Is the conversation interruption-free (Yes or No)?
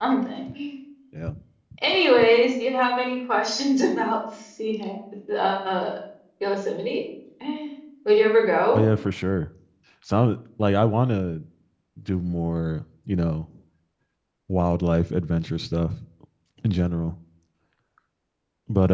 Yes